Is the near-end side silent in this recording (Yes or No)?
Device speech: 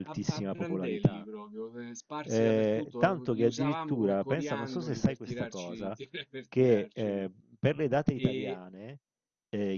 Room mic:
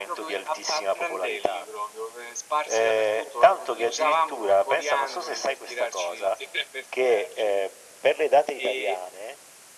Yes